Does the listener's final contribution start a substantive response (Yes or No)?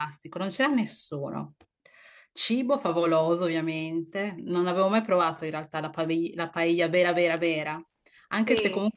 No